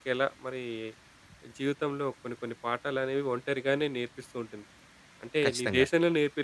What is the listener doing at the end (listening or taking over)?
listening